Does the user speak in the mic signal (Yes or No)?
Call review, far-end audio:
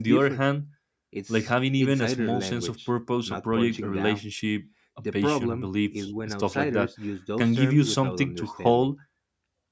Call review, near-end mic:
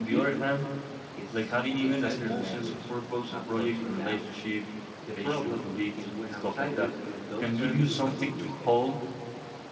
No